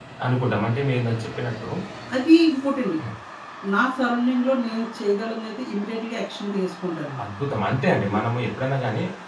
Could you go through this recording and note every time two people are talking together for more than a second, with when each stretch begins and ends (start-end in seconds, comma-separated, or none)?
none